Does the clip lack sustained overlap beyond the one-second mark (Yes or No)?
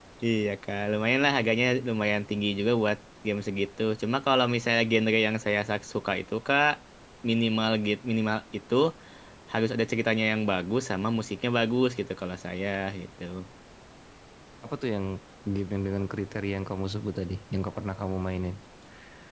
Yes